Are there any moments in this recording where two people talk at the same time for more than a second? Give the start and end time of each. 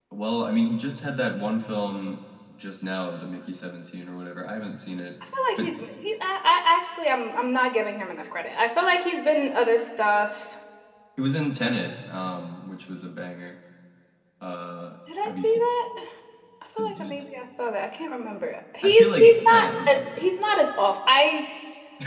18.8-20.3

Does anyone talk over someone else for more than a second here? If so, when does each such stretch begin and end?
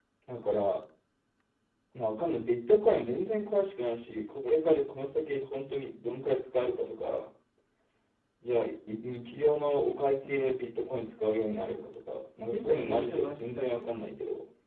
12.5-13.9

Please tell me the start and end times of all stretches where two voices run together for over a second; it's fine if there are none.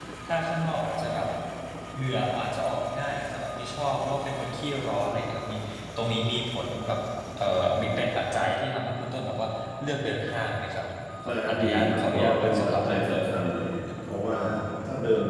11.5-13.2

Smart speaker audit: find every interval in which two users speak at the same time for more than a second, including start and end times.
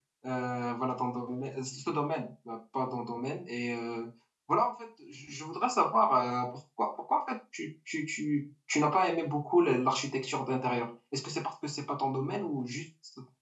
none

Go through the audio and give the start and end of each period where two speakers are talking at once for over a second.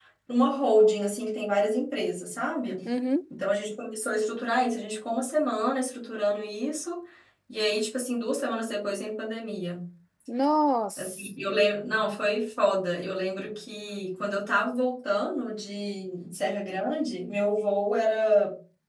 none

